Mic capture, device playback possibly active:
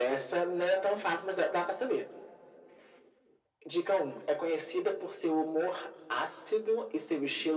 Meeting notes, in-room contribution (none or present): none